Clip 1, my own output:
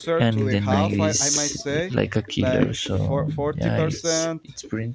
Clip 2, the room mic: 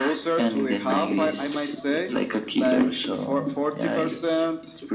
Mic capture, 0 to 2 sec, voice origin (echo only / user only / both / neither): echo only